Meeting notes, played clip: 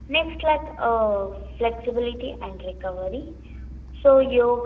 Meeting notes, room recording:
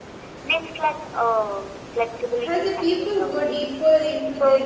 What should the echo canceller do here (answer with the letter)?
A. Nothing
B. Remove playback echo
B